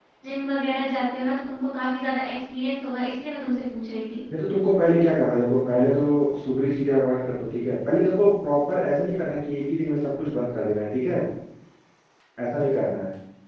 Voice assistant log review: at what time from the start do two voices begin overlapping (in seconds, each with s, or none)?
none